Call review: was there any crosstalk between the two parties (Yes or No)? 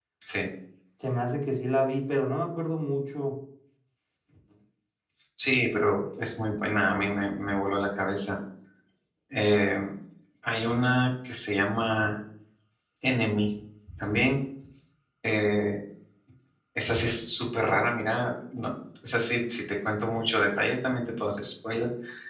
No